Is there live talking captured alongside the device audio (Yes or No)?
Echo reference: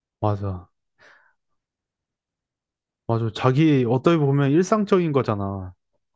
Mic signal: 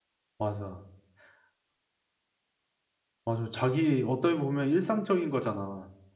No